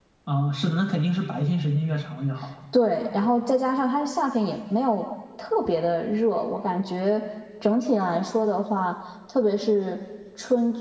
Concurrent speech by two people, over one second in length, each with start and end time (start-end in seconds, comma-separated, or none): none